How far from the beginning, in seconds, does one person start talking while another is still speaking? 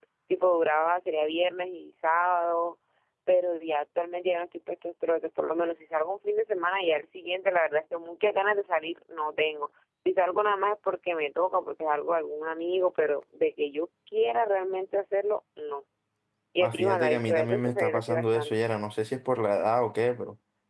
16.6 s

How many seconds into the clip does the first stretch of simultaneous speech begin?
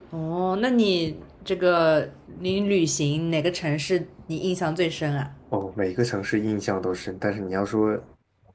none

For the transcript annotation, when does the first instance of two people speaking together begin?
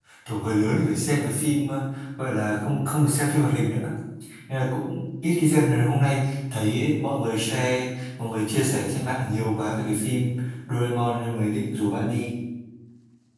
none

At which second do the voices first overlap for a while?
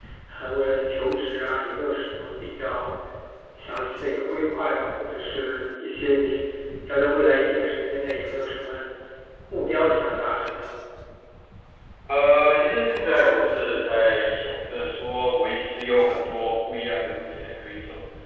none

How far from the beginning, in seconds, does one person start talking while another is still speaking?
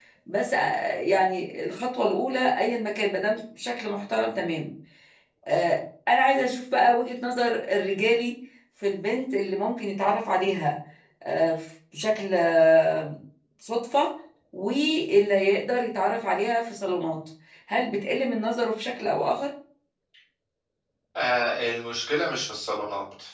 none

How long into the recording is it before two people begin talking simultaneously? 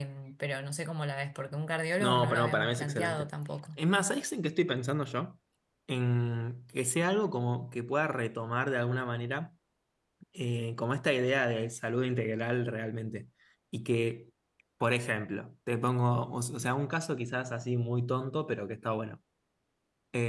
2.0 s

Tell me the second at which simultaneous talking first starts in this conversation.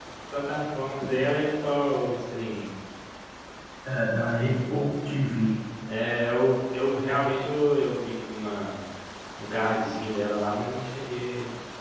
none

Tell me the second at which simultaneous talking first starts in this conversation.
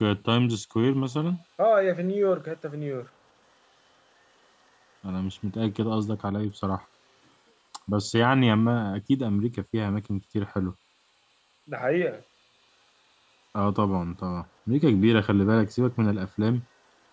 none

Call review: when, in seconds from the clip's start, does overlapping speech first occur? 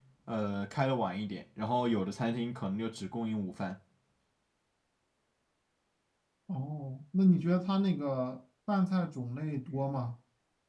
none

